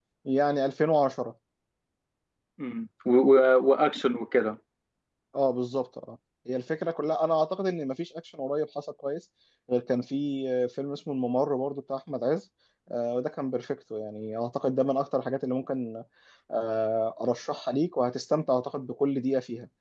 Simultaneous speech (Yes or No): No